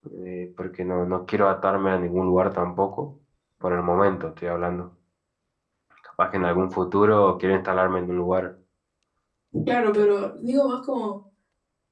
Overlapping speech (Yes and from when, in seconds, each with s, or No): No